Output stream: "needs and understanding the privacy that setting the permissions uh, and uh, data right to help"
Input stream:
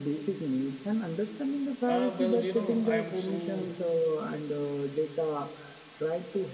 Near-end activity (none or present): present